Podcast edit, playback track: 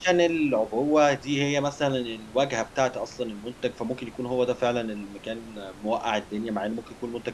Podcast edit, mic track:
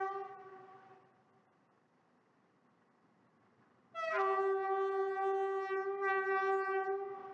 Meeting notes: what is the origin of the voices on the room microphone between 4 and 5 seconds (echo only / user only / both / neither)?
neither